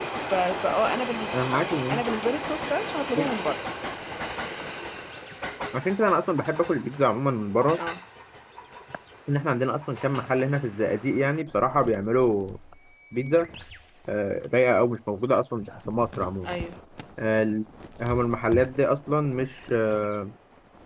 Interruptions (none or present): none